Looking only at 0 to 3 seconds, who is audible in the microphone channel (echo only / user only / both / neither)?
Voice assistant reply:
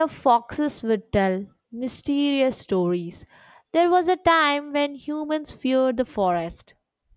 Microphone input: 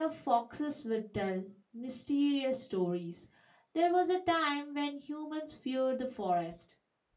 echo only